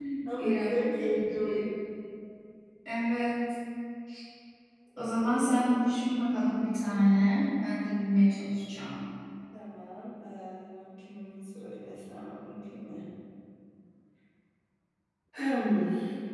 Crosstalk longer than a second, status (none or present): present